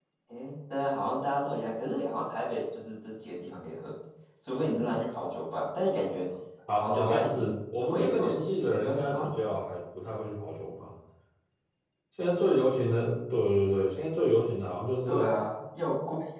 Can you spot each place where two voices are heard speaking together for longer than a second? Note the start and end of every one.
6.7-9.3

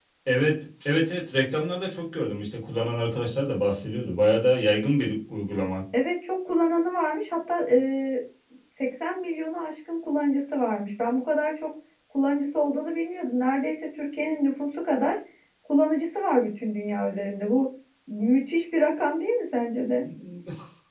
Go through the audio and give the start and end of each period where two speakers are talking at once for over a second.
none

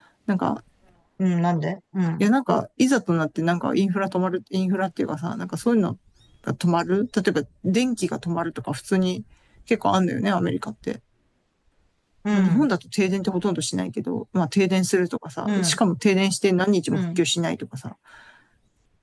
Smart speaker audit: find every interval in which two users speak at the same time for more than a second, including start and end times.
none

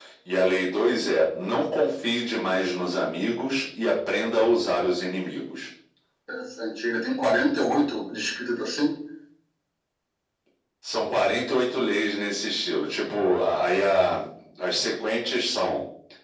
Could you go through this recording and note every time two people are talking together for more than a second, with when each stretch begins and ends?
none

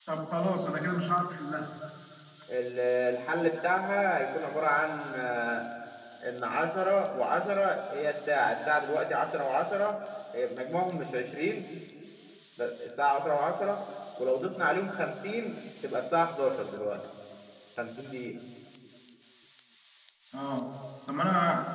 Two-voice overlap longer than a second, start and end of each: none

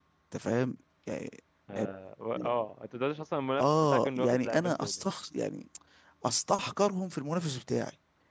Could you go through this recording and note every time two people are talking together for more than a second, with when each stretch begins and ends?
3.6-4.9

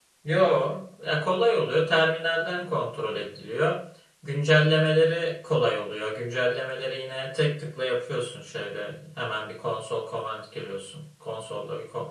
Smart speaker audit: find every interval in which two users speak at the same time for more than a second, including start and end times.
none

